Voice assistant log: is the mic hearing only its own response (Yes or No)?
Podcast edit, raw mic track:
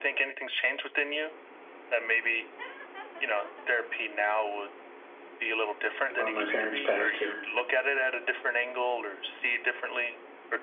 No